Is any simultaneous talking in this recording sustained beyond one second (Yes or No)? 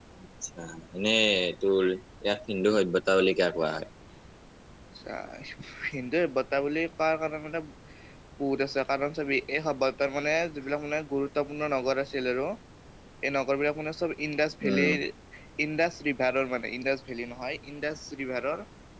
No